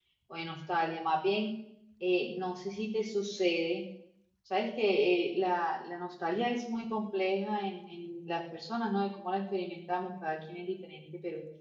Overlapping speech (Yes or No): No